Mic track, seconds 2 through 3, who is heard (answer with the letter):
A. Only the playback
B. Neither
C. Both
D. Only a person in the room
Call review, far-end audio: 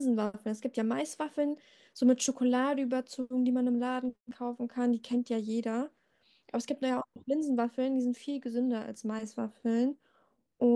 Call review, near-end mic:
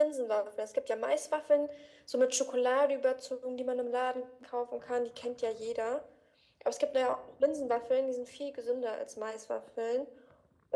A